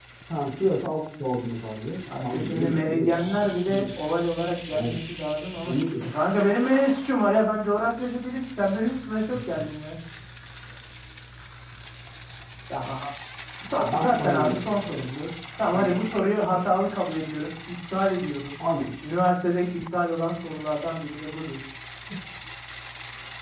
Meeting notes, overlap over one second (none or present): present